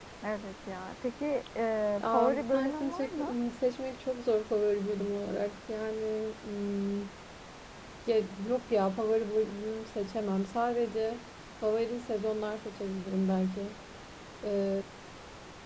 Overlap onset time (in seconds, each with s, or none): 2.0 s